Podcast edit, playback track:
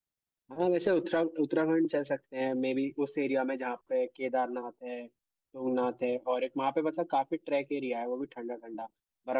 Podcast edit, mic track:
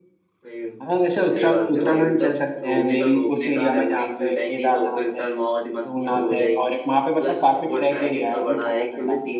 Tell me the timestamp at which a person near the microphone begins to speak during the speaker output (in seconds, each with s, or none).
0.4 s